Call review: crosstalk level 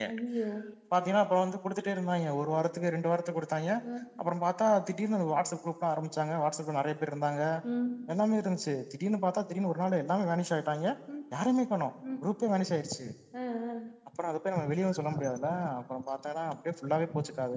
none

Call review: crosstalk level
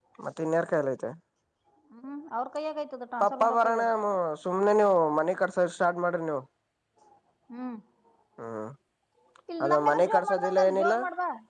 present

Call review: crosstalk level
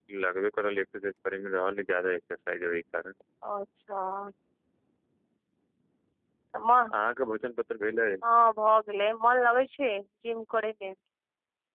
none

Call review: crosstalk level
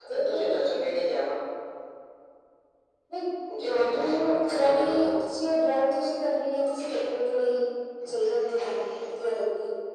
present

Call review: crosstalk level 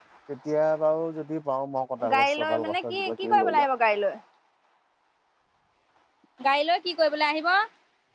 present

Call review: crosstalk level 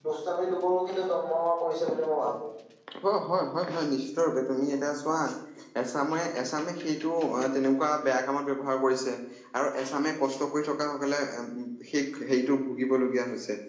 none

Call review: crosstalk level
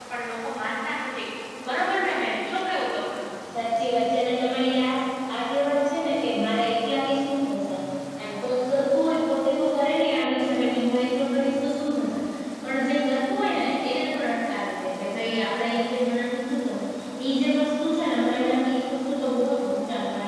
none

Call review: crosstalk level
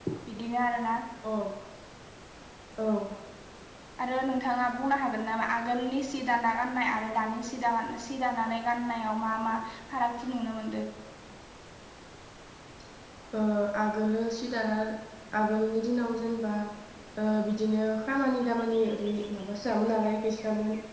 none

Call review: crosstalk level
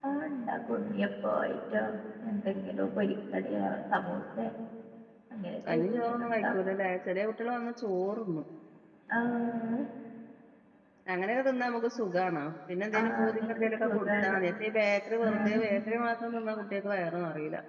present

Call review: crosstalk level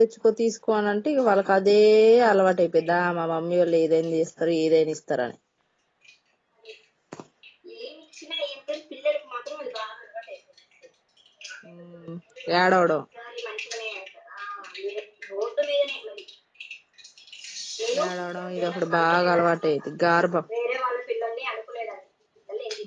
present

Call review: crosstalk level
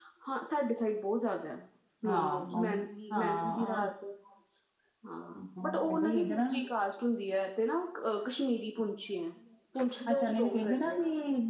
present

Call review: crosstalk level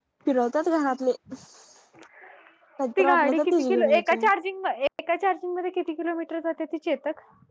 present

